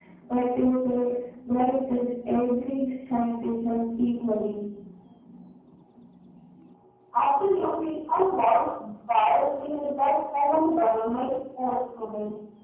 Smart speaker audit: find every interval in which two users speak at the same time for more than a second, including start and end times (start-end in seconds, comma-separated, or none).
none